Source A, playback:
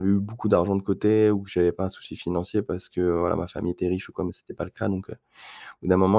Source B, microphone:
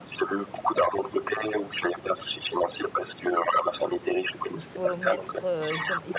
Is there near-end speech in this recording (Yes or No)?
Yes